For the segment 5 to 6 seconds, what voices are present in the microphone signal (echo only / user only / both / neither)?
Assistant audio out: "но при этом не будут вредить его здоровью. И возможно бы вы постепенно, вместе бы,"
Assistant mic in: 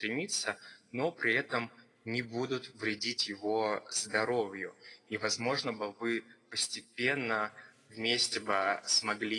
echo only